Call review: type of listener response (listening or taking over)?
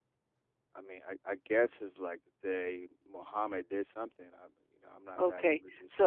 taking over